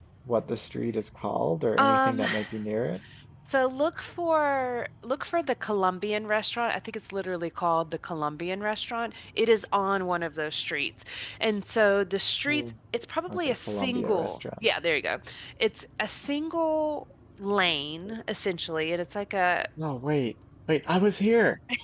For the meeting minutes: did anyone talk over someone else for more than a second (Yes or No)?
Yes